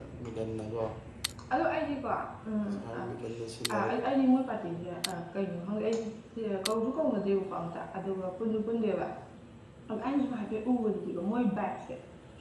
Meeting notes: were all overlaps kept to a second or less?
Yes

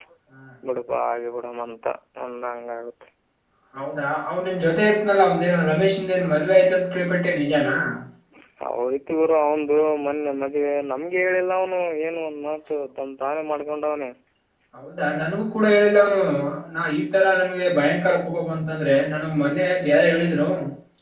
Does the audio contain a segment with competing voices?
No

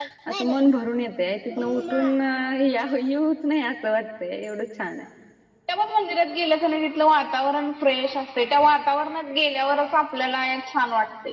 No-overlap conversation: Yes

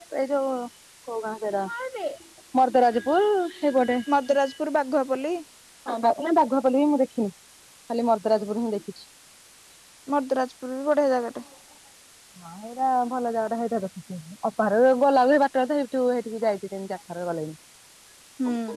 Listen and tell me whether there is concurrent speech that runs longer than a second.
No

